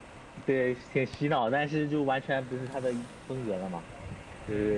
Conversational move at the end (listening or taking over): taking over